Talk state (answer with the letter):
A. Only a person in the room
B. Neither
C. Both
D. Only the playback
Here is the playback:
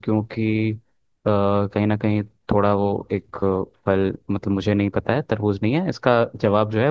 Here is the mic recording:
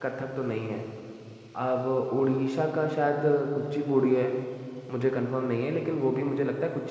A